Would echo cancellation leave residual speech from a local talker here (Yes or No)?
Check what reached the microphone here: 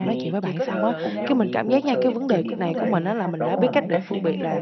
Yes